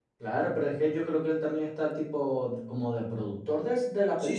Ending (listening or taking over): taking over